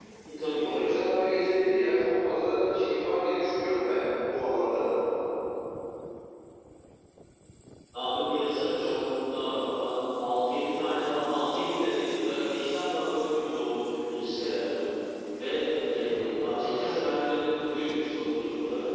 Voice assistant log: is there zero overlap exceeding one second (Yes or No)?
Yes